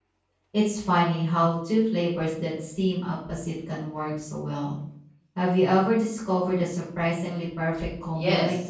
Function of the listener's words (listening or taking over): taking over